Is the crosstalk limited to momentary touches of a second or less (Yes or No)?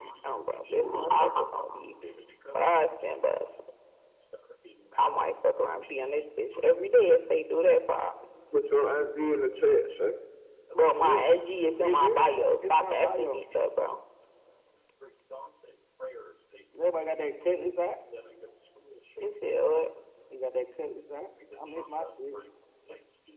No